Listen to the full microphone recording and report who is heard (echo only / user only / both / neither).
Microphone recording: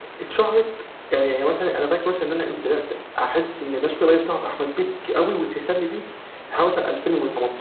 echo only